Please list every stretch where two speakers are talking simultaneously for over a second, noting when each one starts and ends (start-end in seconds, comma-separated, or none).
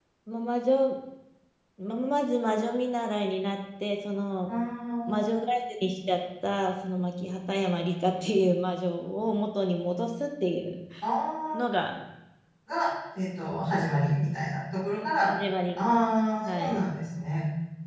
none